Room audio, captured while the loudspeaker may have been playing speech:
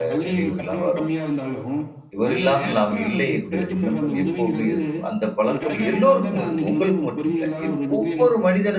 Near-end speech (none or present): present